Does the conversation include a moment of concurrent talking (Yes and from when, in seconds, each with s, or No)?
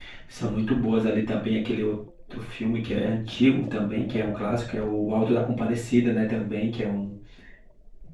No